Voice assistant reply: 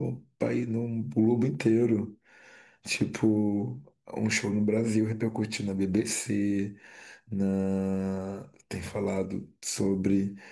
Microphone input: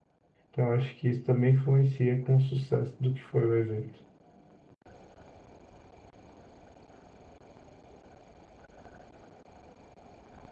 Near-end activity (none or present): present